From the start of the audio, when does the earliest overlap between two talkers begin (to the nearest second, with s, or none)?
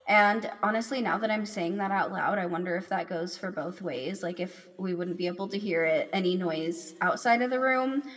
none